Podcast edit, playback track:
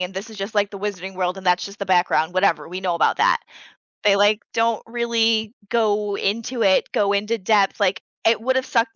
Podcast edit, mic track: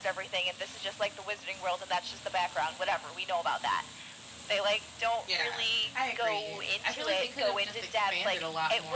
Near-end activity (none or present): present